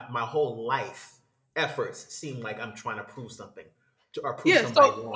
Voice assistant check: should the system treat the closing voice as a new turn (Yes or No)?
Yes